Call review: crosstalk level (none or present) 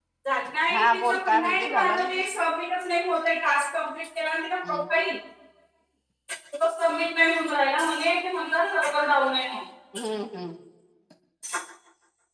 present